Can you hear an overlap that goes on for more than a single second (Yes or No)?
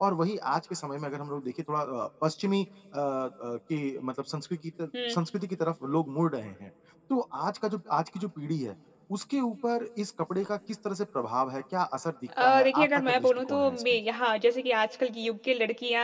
Yes